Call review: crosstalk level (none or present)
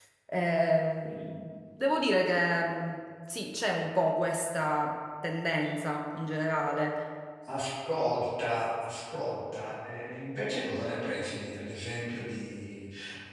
none